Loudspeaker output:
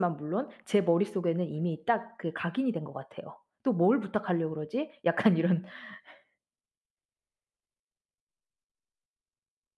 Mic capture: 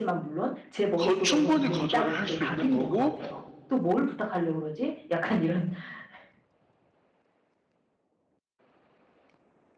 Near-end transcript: 거 충분히 거절을 할 수 있는 거고

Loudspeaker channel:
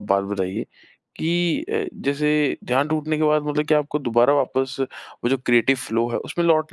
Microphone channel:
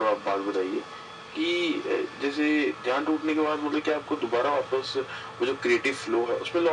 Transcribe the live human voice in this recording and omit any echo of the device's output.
none

